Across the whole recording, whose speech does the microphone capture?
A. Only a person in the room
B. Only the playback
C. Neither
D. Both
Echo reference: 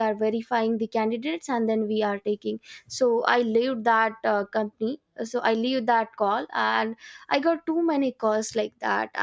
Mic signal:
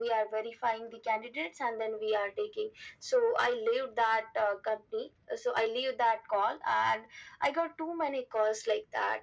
B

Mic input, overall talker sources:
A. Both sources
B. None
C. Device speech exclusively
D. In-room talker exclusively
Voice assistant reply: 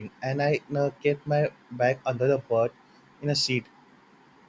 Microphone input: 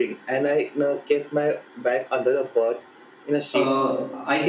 A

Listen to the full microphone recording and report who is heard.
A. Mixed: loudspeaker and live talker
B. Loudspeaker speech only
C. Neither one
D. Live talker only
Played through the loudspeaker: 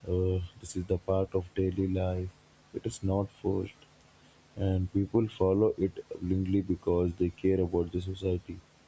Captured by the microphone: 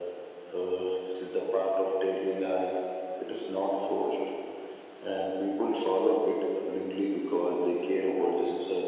B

